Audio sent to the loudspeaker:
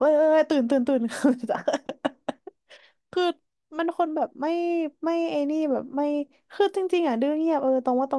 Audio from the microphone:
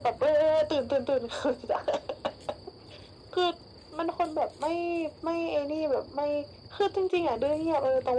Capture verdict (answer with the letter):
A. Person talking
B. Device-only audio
B